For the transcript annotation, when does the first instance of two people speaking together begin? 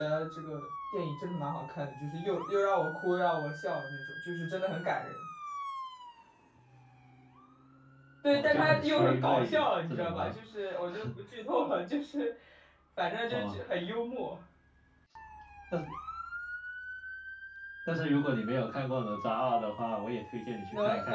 8 s

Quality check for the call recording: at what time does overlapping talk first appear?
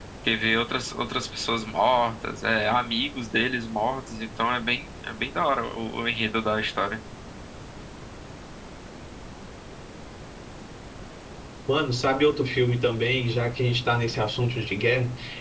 none

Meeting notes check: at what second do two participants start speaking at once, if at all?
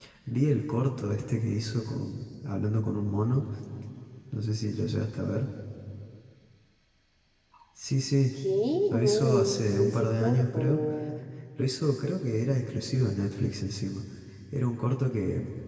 9 s

